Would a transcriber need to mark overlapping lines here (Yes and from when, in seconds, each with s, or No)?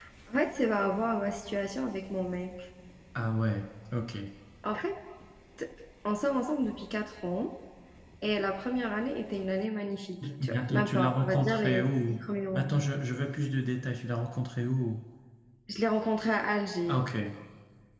Yes, from 10.2 s